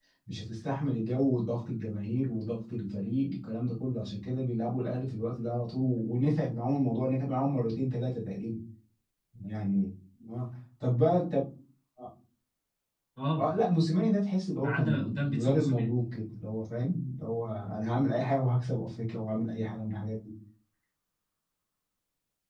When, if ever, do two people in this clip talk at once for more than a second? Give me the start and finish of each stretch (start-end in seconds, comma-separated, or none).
14.6-15.9